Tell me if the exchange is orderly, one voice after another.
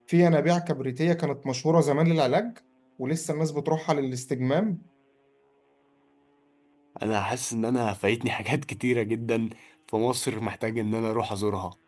Yes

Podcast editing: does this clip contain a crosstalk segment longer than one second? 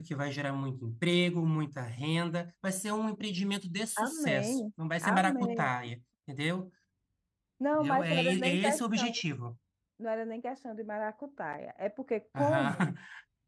Yes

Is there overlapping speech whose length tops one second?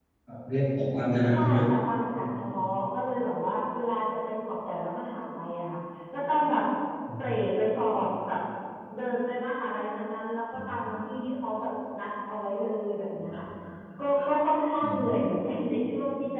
No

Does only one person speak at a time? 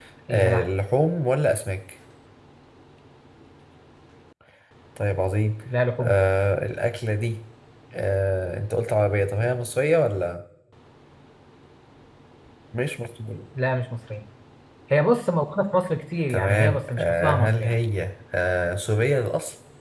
No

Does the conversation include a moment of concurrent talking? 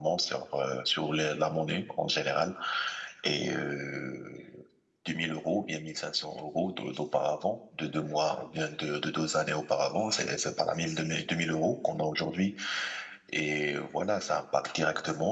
No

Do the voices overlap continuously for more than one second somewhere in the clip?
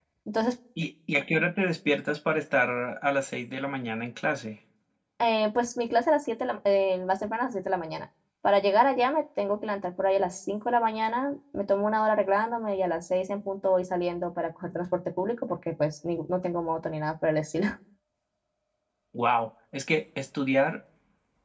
No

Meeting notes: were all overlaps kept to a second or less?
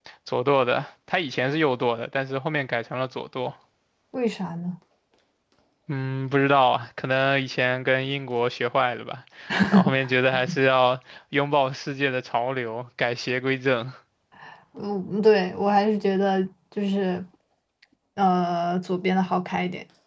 Yes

